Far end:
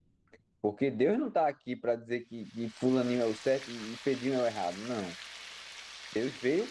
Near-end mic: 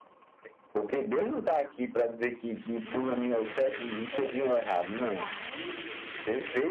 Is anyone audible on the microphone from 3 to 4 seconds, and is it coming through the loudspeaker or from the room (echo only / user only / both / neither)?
both